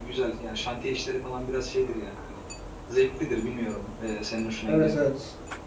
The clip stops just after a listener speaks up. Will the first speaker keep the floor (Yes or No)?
No